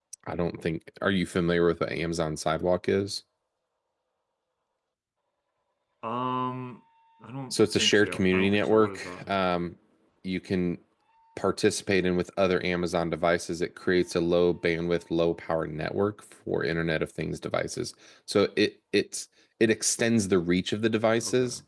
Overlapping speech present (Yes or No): Yes